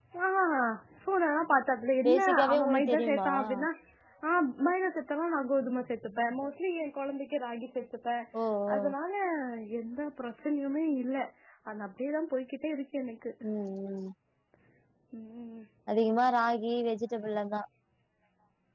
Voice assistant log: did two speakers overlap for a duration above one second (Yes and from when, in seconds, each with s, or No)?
Yes, from 2.0 s